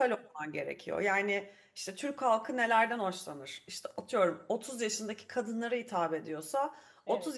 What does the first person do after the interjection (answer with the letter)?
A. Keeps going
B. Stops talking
A